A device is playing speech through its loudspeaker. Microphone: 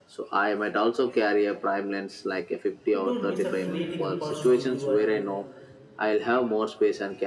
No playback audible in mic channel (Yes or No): No